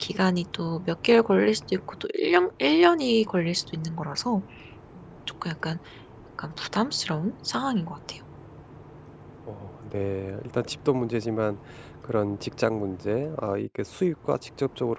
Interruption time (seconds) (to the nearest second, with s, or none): none